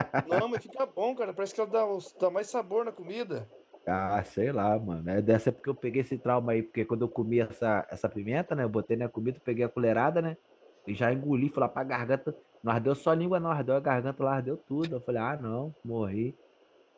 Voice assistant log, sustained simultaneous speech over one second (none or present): none